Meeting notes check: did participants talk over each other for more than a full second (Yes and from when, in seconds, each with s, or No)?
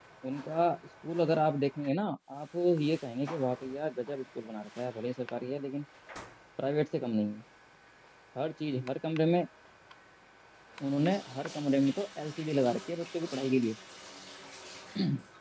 No